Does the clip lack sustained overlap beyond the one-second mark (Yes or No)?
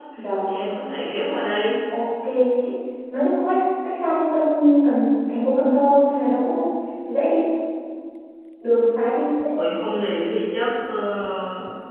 Yes